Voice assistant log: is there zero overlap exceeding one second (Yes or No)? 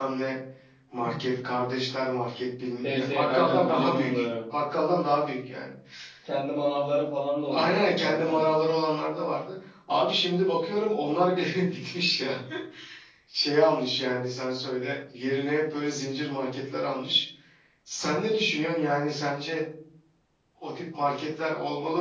No